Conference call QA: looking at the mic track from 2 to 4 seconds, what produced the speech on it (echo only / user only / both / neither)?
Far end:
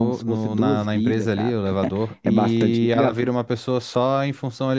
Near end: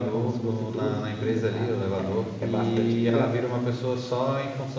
echo only